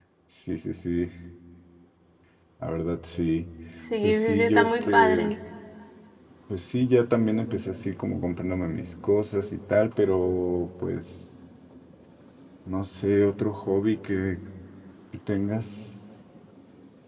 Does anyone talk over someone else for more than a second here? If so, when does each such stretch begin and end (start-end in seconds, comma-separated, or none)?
4.0-5.3